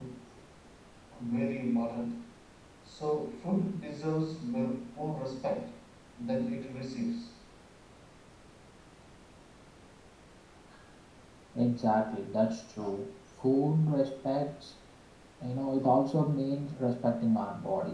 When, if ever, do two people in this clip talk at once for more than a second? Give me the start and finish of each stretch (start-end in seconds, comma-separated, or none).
none